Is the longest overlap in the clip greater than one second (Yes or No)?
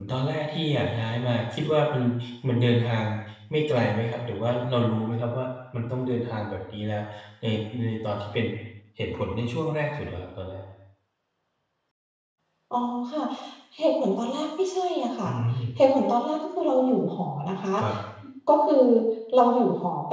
No